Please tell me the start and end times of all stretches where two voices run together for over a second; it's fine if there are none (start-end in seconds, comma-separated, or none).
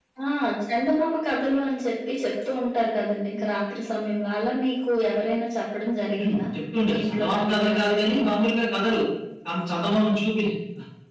6.8-8.4